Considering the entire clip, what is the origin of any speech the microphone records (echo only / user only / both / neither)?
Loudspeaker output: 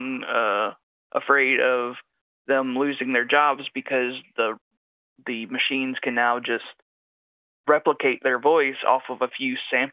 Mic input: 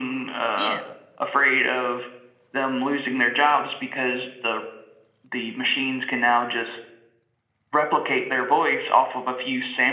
both